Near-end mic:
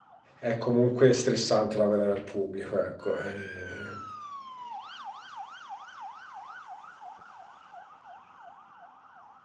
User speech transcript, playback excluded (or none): È comunque stressante lavorare al pubblico, ecco. eh,